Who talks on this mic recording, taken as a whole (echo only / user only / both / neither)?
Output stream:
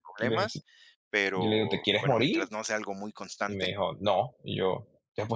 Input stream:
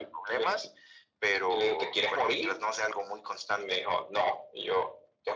echo only